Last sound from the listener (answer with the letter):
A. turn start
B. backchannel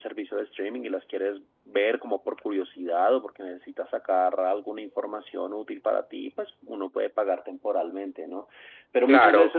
B